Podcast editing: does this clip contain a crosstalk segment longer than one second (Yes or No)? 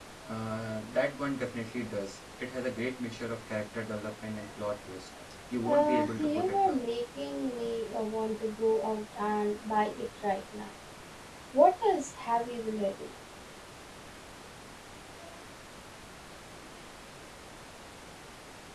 Yes